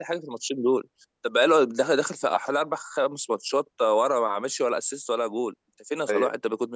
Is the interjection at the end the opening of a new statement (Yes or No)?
No